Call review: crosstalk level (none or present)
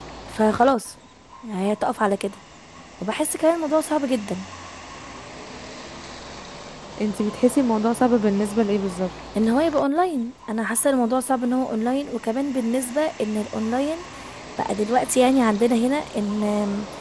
none